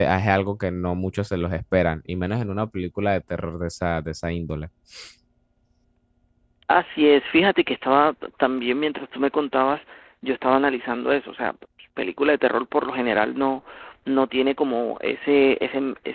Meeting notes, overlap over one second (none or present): none